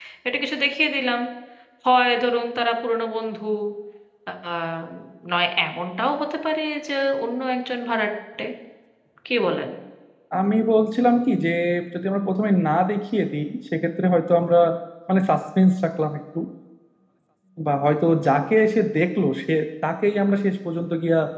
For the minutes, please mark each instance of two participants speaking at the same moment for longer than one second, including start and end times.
none

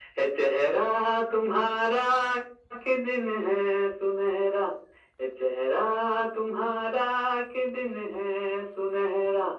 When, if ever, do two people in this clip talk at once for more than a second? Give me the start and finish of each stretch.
none

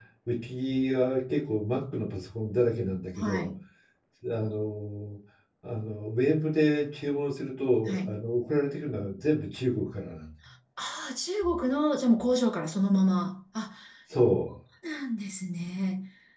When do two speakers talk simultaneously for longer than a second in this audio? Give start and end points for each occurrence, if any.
none

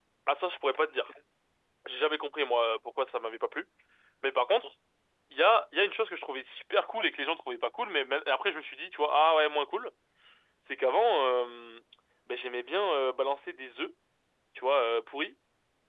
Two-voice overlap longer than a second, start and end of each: none

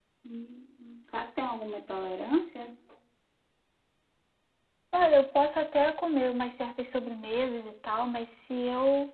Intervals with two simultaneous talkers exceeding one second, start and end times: none

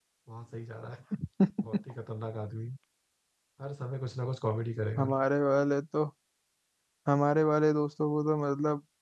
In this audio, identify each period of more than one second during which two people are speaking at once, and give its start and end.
none

